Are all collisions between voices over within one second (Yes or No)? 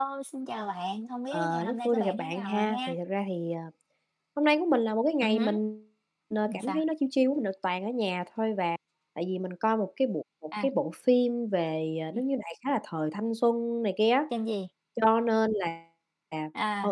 No